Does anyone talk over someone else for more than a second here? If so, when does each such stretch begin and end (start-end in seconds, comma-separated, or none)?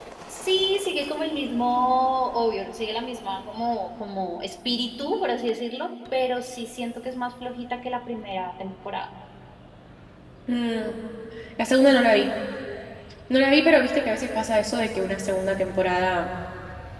none